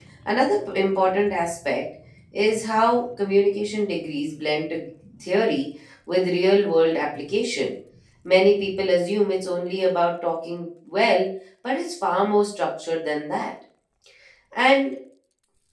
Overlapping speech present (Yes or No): No